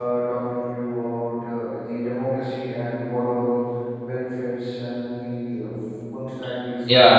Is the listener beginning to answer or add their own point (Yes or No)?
Yes